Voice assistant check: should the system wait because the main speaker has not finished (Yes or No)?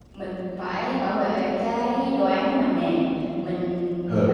Yes